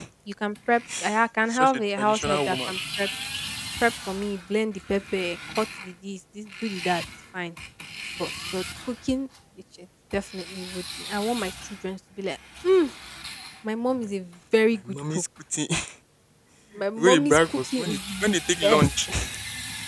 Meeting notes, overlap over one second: present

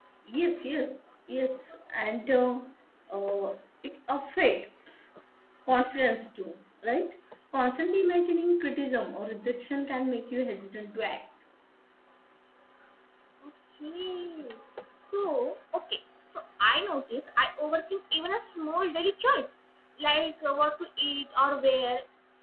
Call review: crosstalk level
none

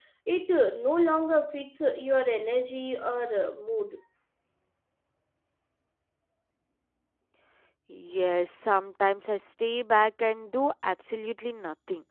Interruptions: none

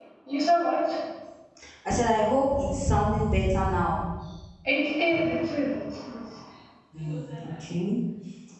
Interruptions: none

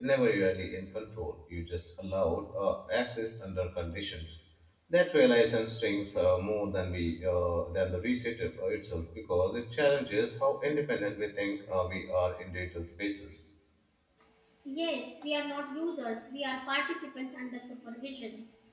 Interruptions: none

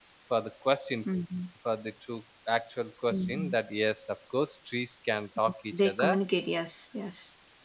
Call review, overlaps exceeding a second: none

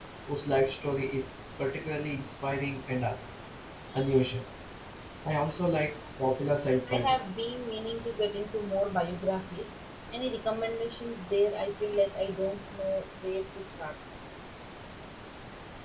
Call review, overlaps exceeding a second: none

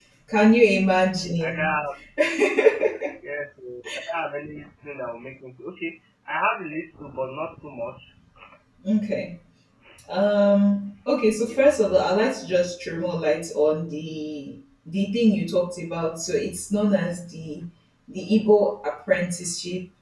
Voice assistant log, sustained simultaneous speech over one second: none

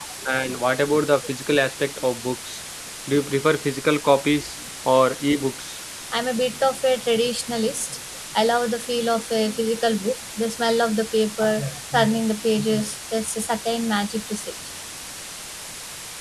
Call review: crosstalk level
none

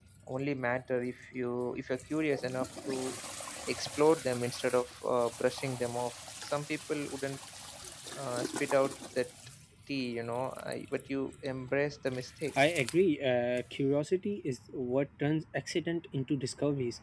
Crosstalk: none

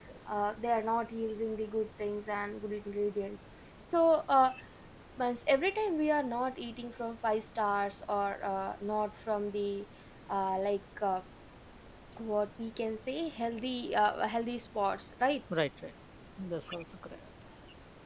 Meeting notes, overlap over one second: none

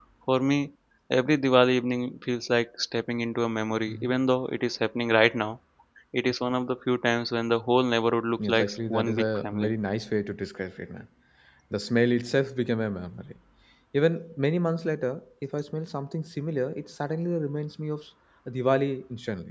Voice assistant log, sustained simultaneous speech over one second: present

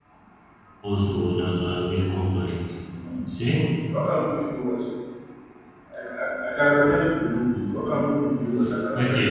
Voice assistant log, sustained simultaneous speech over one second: none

